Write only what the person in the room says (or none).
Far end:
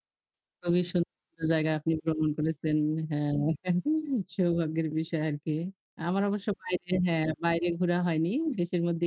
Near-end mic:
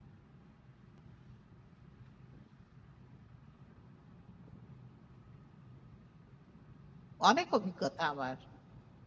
অনেক অভিজ্ঞতা আমার।